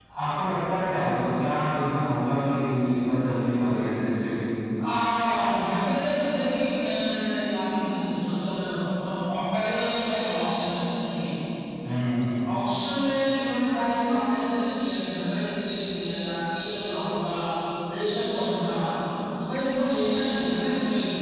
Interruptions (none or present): none